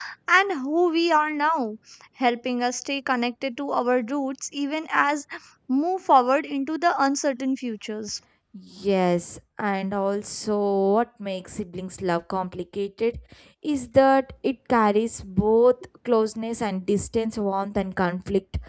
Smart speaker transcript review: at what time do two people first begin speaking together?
none

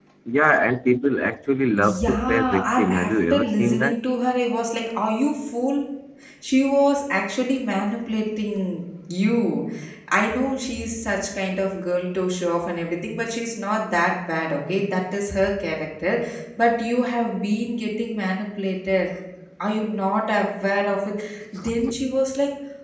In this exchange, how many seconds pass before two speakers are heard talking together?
1.8 s

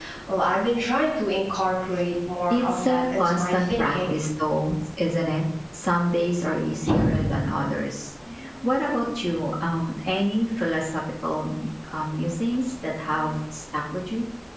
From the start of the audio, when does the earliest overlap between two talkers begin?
2.5 s

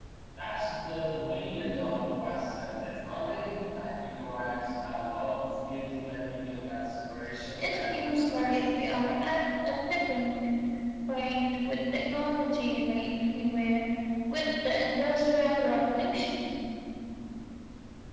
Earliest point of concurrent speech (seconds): 7.6 s

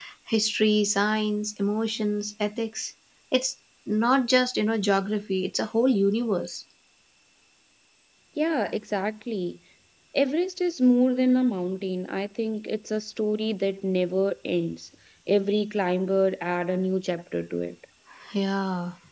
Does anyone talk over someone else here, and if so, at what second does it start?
none

